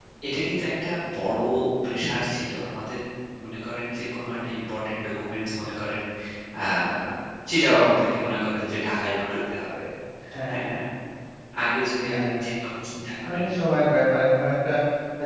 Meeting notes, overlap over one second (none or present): none